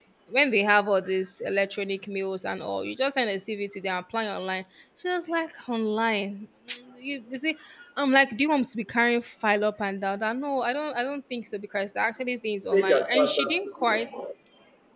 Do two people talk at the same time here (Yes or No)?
Yes